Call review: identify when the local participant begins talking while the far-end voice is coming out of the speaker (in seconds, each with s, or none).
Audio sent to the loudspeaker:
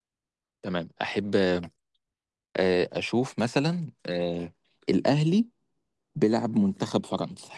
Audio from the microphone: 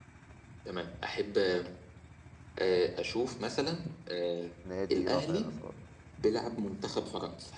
4.6 s